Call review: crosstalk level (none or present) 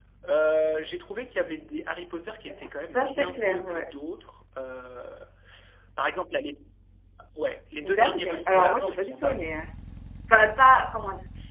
present